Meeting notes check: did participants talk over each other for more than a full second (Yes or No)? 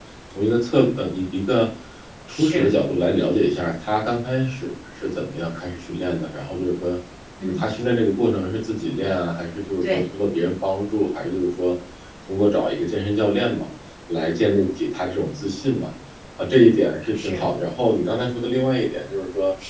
No